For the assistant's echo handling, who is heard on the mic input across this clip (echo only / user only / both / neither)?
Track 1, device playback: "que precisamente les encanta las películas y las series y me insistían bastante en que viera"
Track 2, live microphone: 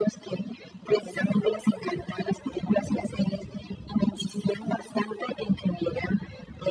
echo only